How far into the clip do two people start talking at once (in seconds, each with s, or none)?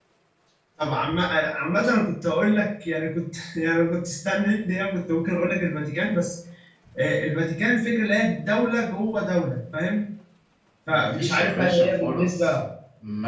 10.9 s